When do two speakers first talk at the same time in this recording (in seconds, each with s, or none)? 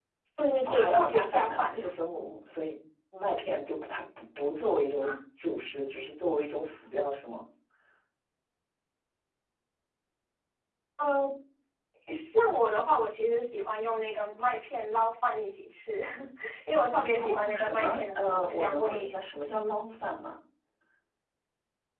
0.6 s